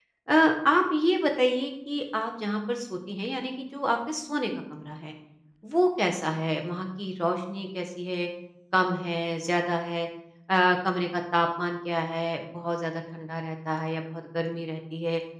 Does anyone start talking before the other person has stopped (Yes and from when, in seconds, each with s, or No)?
No